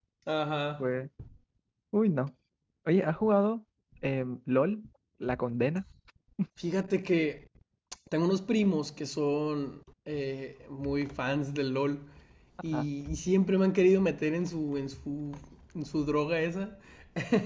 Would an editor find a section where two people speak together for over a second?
No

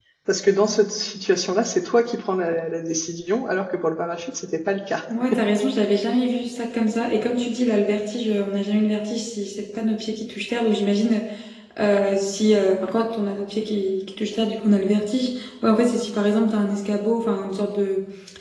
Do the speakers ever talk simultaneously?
No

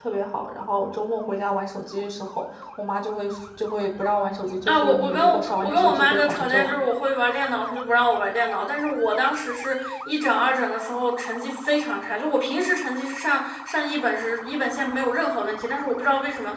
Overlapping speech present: Yes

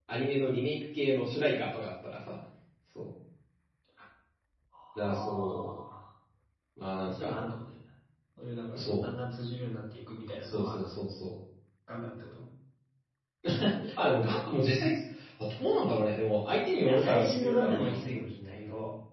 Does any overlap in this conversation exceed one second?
Yes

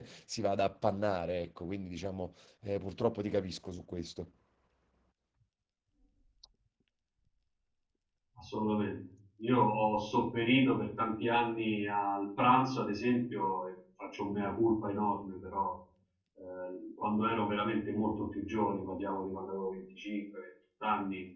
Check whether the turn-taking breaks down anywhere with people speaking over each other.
No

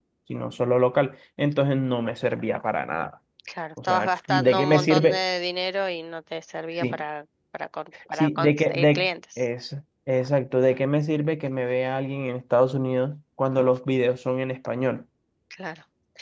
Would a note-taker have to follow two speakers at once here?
Yes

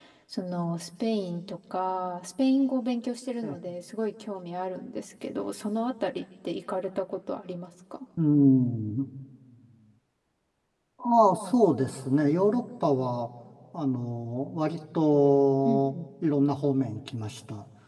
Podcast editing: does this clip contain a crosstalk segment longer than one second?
No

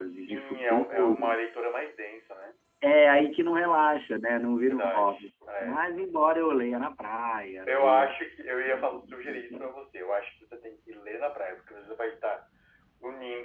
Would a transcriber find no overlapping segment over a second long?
No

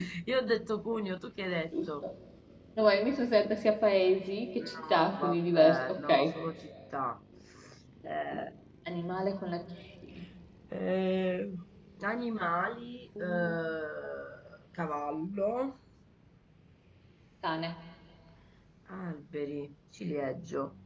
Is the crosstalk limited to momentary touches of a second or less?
No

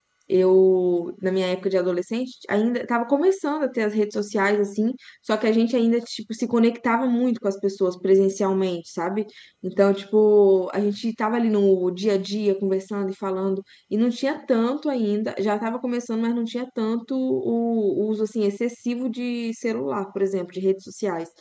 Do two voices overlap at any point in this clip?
No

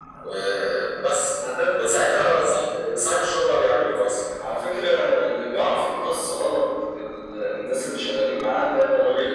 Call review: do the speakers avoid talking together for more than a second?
Yes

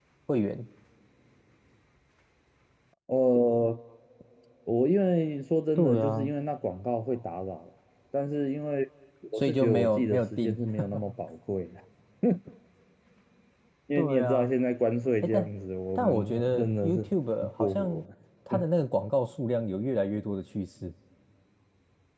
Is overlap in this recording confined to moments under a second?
No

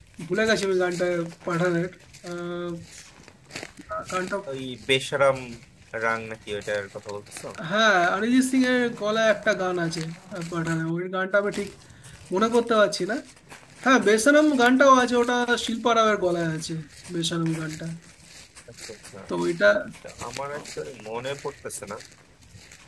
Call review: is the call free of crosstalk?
Yes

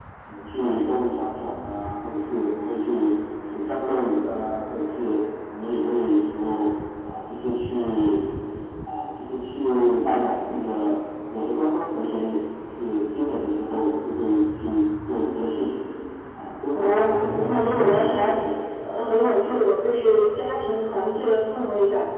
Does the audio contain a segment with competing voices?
Yes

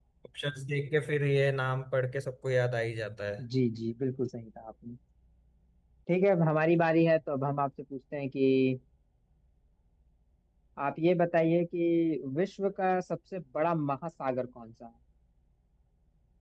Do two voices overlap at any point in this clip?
No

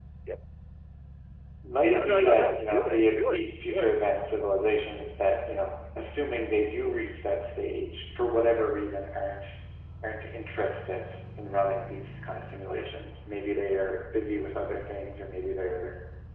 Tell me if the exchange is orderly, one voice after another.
No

